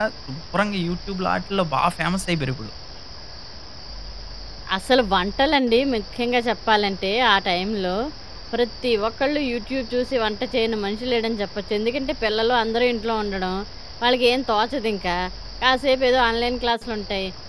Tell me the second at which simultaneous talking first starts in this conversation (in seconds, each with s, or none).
none